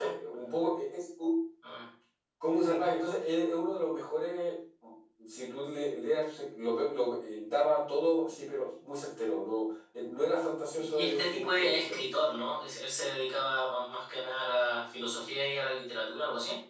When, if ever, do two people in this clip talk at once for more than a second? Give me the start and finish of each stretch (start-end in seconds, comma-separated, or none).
10.8-12.0